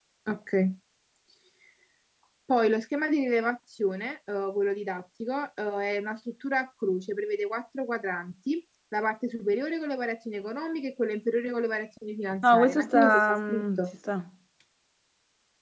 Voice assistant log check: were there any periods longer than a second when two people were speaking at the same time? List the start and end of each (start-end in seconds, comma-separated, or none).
12.4-13.8